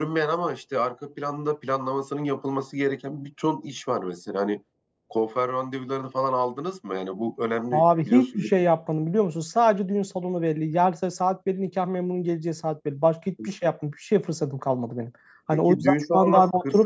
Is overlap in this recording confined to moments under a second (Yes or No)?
No